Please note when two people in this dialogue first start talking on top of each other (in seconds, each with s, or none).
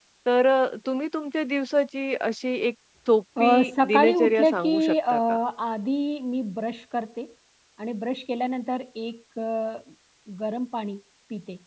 3.4 s